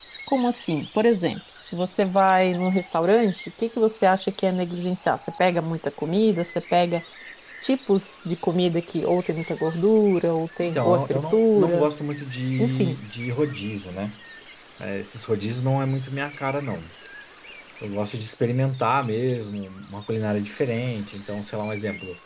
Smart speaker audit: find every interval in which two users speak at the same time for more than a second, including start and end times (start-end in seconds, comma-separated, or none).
10.6-11.9